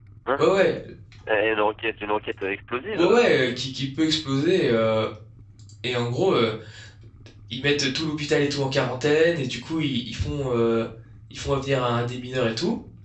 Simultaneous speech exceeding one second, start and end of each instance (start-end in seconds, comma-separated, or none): none